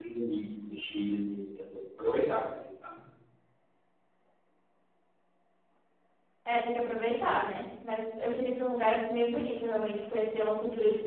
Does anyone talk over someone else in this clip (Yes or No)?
No